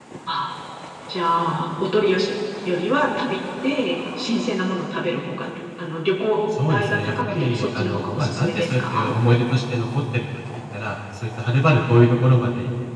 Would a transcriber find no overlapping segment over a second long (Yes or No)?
No